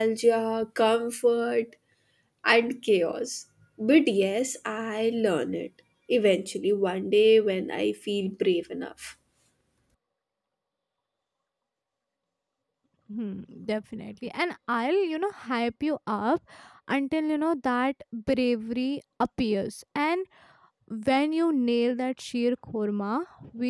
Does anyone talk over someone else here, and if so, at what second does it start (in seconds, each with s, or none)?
none